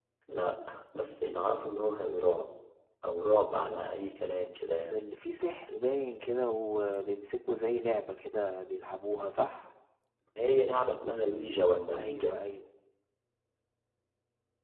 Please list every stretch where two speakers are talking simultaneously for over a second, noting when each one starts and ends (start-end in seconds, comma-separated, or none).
none